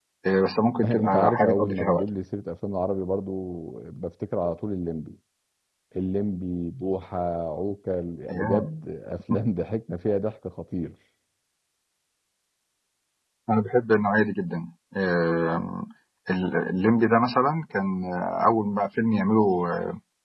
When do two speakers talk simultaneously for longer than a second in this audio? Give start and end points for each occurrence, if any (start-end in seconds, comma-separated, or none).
0.8-2.1